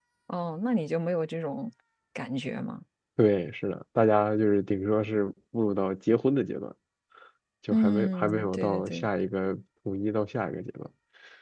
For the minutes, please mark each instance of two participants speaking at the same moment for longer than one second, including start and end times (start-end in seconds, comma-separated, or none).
7.7-9.1